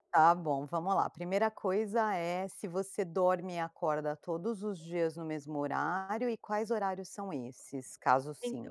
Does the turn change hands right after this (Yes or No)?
Yes